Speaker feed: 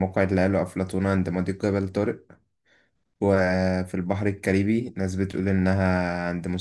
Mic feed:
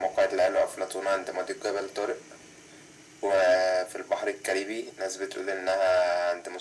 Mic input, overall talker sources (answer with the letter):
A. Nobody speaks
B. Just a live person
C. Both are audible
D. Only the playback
D